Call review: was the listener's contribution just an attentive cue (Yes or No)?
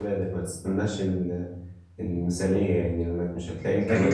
No